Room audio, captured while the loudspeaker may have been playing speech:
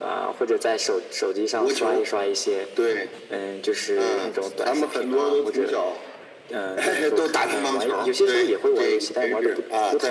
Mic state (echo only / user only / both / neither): echo only